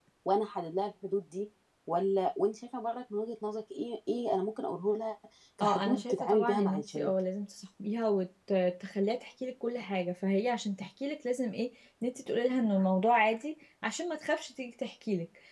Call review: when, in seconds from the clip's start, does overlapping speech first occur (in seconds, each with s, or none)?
5.6 s